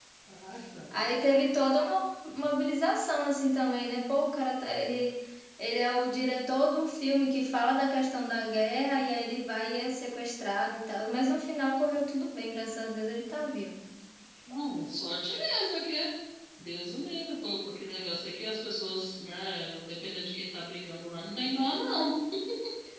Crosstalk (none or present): none